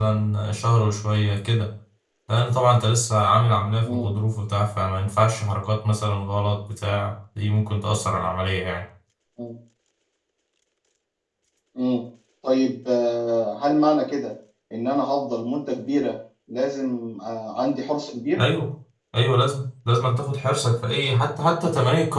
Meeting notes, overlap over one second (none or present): none